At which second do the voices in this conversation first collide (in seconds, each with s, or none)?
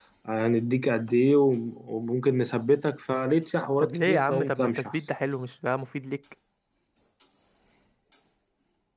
3.8 s